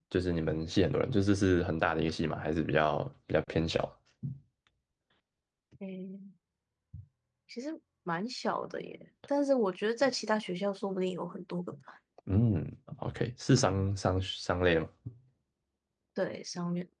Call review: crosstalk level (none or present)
none